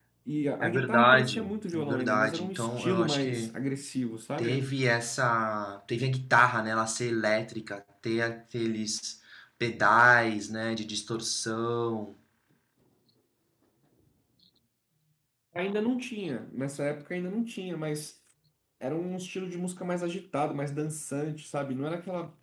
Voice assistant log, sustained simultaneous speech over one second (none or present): present